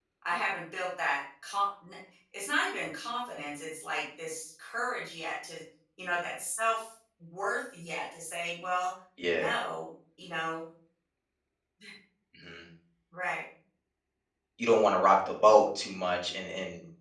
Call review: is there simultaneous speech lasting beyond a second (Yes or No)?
No